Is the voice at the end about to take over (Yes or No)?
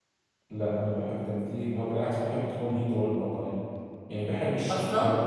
Yes